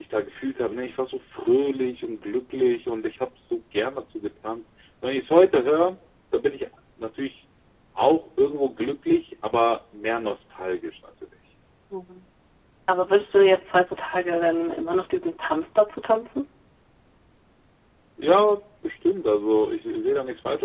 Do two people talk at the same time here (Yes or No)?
No